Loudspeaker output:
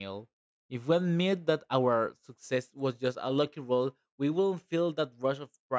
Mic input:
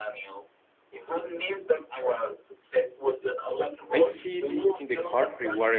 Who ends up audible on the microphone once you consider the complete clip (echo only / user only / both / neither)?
both